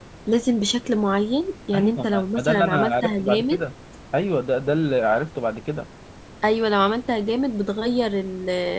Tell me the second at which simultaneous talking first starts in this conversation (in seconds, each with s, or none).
1.7 s